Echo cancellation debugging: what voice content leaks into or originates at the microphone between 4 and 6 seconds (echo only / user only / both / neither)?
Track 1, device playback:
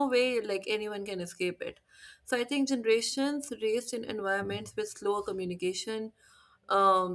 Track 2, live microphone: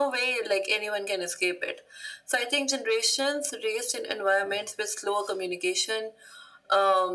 echo only